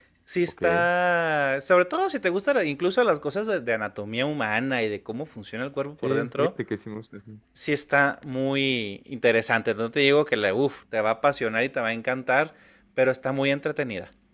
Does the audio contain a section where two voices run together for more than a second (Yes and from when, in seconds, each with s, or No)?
No